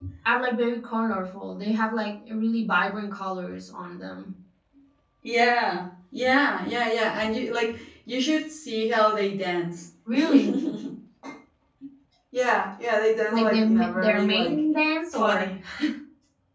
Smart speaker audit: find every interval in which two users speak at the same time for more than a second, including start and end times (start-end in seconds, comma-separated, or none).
13.3-14.6